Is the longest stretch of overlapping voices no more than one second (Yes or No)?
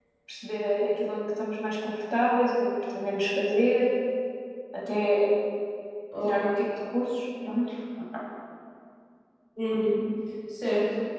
Yes